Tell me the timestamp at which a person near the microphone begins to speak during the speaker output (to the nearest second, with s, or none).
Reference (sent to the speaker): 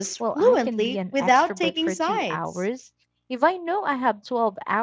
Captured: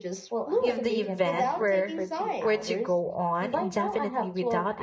1 s